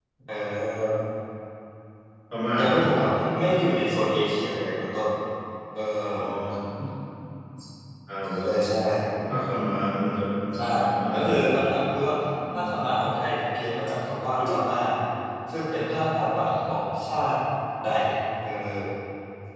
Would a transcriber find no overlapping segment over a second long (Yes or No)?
Yes